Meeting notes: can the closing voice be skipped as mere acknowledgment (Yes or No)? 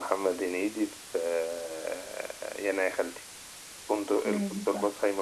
No